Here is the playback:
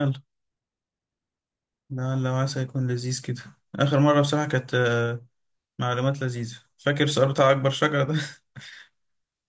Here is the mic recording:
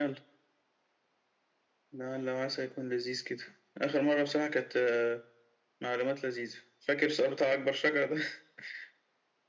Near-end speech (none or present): none